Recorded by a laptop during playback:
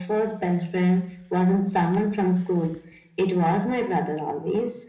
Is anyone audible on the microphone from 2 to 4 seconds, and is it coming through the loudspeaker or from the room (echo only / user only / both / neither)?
echo only